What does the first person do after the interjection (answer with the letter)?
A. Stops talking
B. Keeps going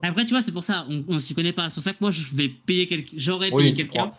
A